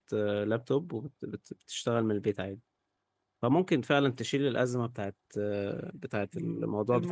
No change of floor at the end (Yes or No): No